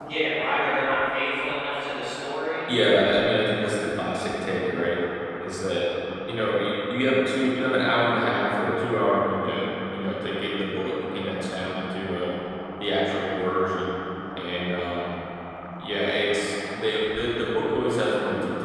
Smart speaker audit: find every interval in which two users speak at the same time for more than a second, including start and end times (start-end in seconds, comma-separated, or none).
none